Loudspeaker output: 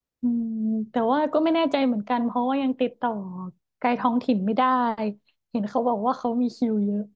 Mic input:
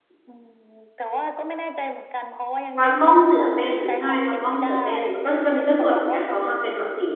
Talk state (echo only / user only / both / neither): both